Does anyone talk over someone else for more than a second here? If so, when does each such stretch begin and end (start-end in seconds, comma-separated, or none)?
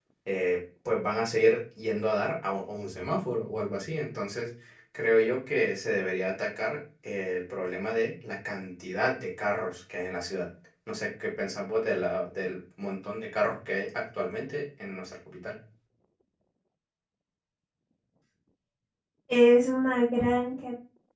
none